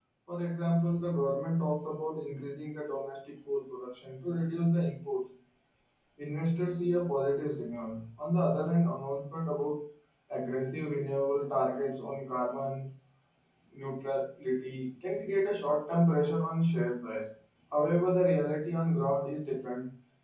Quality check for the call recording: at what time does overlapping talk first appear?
none

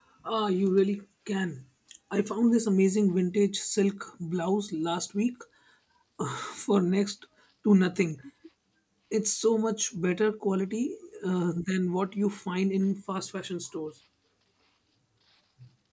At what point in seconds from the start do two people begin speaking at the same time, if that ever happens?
none

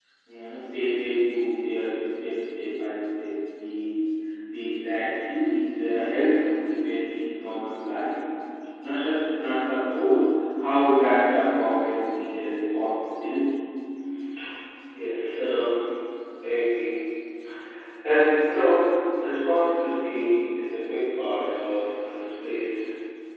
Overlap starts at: none

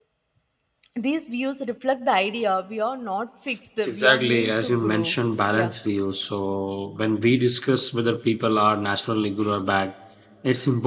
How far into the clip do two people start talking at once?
3.8 s

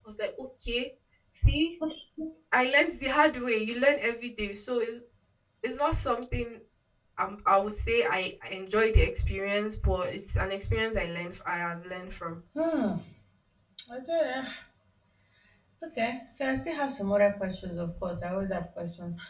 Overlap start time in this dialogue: none

